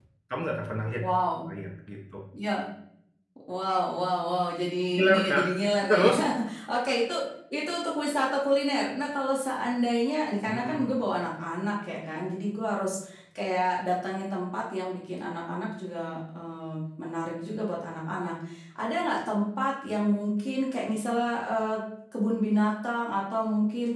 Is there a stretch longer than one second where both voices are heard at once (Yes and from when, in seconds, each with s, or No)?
No